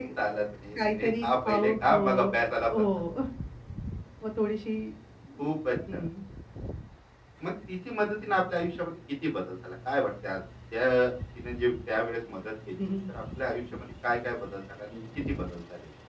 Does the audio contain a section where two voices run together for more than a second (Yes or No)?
Yes